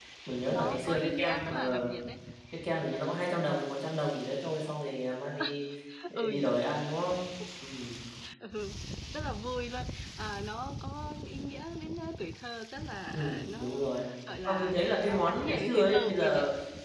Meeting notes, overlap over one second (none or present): present